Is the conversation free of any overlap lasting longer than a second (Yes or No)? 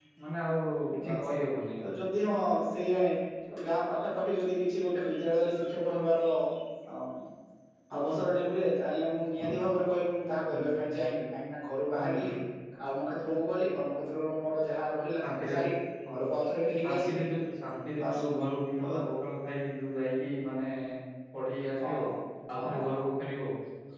Yes